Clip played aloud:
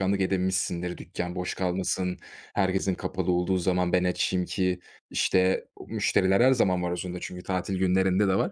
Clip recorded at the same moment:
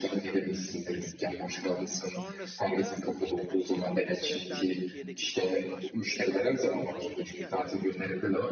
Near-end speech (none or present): present